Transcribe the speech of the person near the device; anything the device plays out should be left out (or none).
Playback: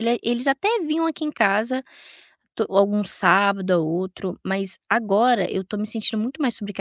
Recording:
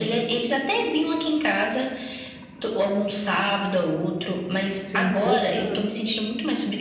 sim. Outra